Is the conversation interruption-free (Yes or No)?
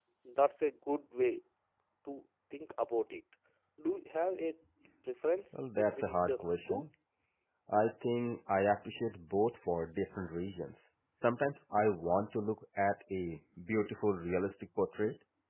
No